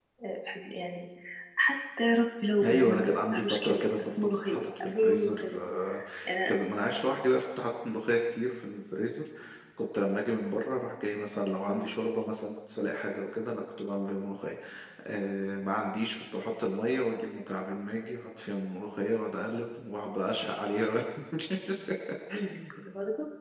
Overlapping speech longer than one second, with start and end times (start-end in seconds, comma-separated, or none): 2.6-5.6